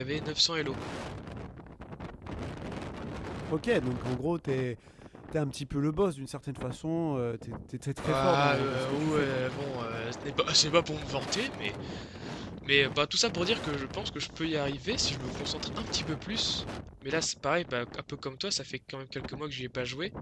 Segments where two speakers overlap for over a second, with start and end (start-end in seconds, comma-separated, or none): 8.0-9.4